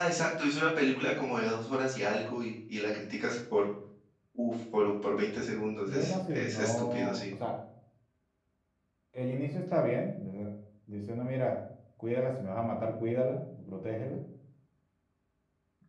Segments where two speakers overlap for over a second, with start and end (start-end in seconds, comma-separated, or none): 5.8-7.2